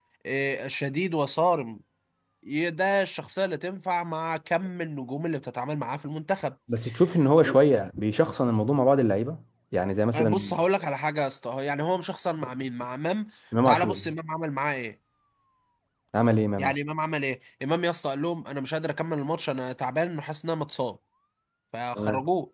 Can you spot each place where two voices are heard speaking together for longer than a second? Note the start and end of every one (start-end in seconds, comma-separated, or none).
none